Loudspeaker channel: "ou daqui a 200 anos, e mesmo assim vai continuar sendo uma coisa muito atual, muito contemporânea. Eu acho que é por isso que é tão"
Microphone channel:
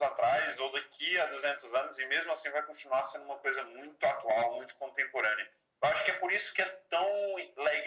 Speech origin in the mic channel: echo only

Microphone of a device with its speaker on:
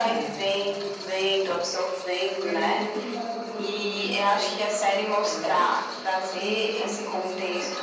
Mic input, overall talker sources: both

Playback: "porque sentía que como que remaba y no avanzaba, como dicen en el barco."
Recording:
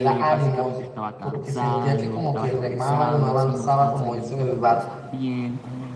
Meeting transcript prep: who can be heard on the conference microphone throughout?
both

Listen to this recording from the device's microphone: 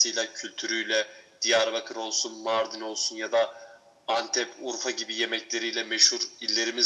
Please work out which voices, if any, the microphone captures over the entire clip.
echo only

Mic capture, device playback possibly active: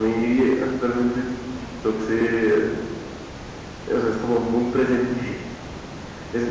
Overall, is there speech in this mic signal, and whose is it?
user only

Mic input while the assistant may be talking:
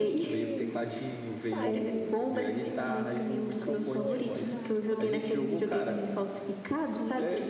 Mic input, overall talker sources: both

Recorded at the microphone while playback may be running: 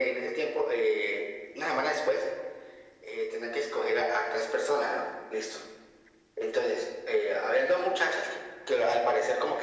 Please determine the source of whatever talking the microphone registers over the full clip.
echo only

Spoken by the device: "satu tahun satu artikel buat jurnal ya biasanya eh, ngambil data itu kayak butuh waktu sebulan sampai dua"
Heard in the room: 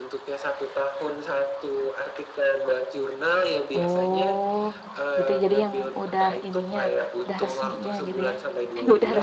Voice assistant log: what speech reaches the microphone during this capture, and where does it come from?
both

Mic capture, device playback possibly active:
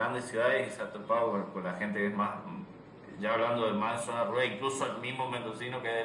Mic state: echo only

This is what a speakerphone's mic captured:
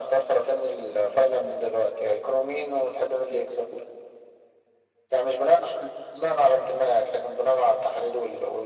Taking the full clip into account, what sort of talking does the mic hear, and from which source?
echo only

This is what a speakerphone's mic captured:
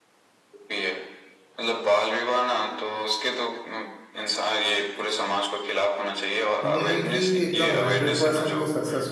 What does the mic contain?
both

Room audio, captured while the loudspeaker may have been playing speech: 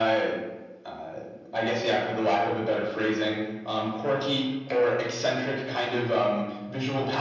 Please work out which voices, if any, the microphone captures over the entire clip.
echo only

